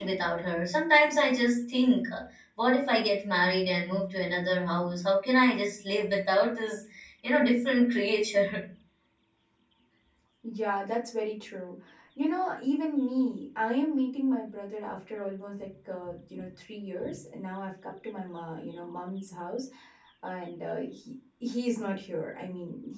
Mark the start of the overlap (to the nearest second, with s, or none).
none